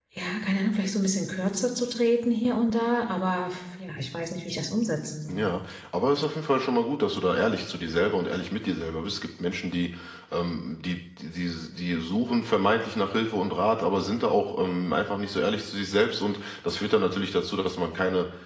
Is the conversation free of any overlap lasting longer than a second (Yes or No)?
Yes